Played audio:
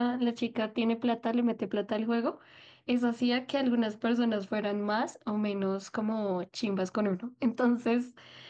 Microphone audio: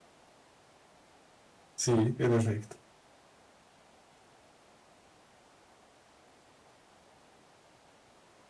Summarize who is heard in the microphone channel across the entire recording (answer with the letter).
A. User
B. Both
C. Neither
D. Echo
A